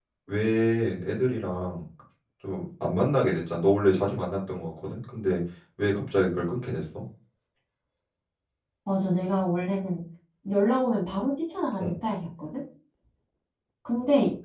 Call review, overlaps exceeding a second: none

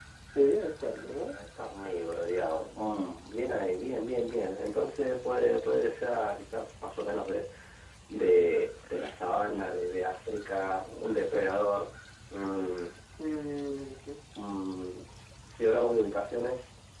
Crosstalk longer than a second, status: none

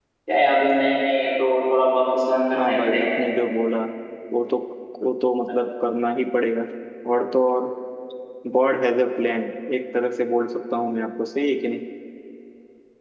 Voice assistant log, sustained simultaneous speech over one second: none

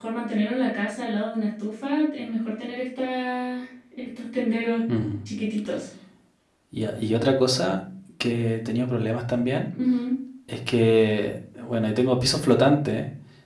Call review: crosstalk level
none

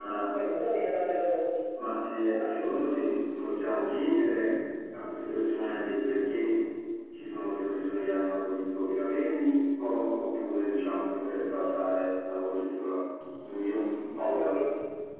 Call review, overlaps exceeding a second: none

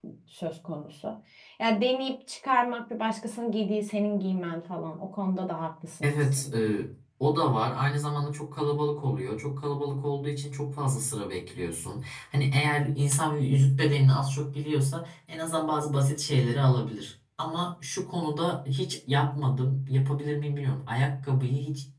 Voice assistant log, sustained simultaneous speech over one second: none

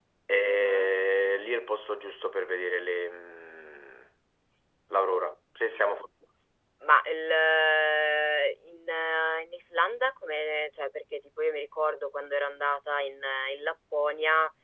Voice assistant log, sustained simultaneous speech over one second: none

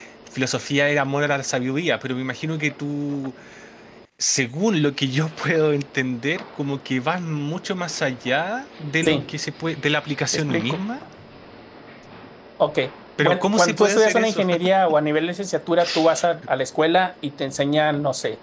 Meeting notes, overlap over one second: present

